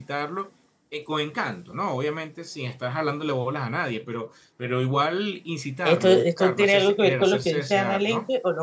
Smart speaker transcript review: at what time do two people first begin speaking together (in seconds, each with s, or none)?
5.8 s